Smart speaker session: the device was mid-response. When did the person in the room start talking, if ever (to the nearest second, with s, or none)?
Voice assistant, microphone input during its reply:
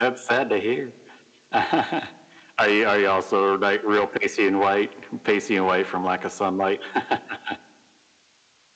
none